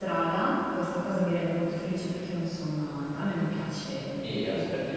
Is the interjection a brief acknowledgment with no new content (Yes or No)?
No